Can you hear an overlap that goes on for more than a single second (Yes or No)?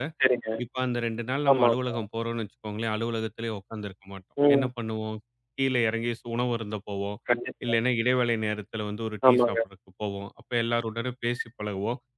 No